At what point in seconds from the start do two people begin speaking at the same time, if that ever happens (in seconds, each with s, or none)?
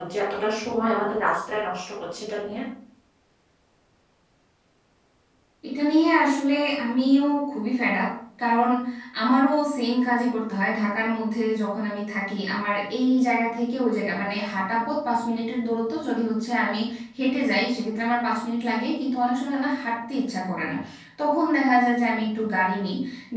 none